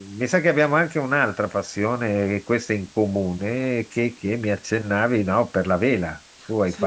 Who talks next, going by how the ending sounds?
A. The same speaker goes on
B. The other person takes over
B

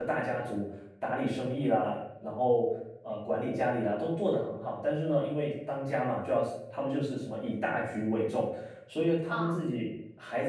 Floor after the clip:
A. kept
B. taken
A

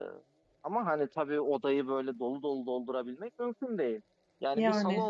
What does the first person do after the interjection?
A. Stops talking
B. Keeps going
B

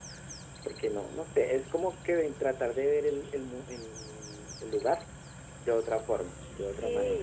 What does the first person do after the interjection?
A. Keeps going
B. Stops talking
B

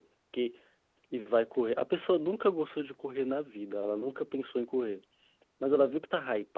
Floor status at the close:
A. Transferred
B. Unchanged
B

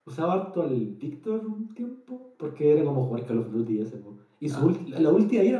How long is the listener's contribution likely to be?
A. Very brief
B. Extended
A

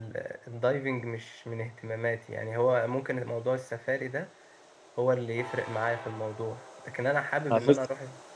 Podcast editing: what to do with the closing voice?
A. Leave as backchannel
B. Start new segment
A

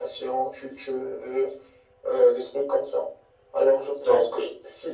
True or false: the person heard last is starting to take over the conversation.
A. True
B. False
B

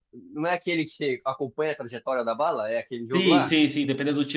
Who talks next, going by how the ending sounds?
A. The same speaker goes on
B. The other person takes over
B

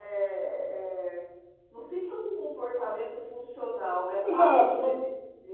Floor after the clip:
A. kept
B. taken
B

